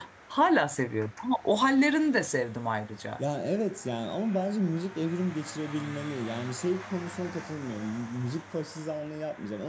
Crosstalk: none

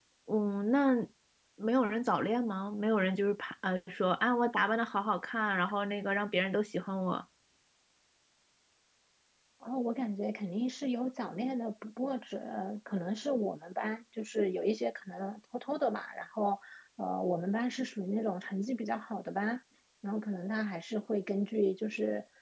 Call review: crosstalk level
none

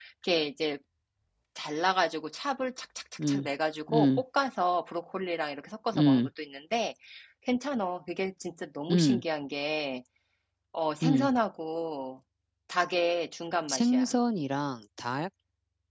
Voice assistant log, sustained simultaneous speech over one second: none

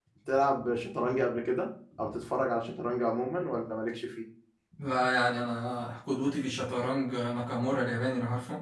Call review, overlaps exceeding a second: none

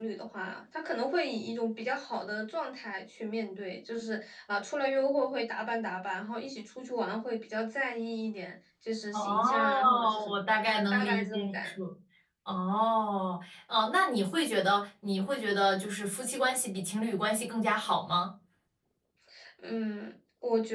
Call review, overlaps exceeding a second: present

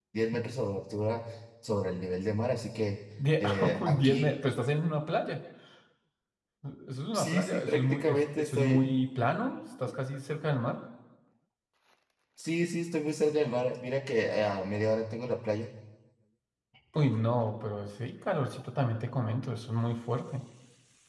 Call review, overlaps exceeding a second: present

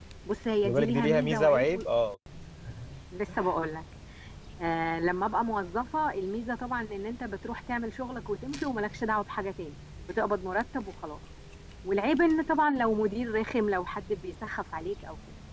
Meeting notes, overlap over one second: present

